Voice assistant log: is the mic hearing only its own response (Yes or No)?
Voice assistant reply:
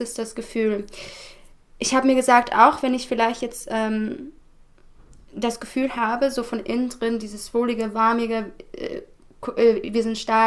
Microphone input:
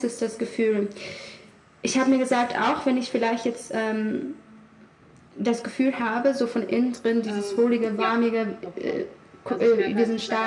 No